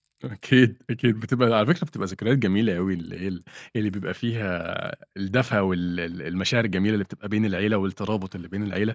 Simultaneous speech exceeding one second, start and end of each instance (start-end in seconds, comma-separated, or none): none